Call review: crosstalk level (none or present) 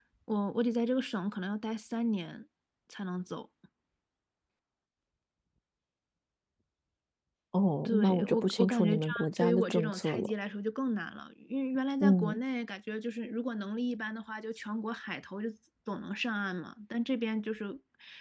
present